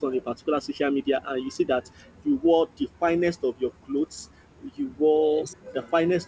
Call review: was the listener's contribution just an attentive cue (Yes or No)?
Yes